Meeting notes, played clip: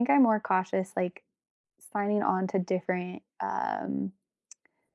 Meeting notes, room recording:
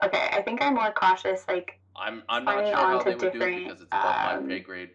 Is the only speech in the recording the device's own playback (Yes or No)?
No